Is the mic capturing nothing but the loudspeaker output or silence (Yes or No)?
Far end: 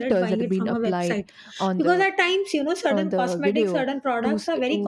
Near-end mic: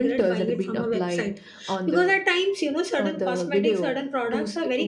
Yes